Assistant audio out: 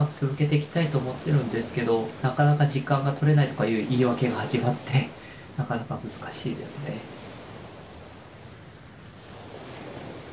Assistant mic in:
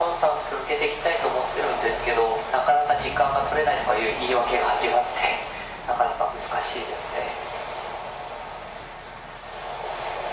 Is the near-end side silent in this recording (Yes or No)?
Yes